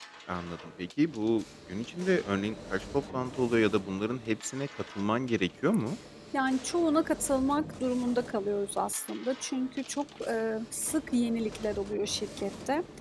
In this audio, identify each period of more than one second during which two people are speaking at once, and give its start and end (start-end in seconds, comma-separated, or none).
none